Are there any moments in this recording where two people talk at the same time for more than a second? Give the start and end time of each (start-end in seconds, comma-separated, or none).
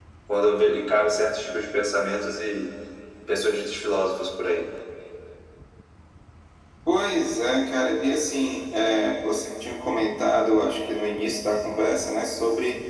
none